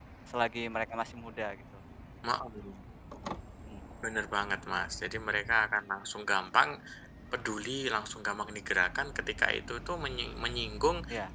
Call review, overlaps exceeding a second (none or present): none